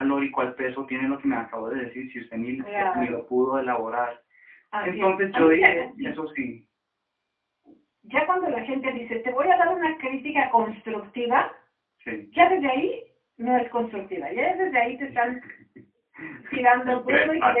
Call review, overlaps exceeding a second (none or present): present